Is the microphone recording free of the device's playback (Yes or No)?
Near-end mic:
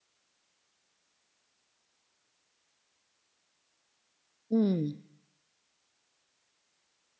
Yes